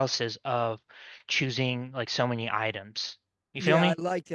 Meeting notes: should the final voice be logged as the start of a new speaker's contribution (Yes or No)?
Yes